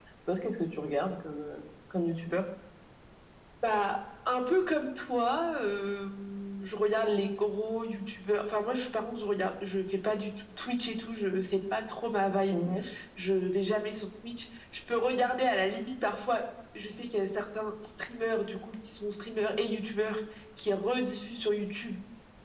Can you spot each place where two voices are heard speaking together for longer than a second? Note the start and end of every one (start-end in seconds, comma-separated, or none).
none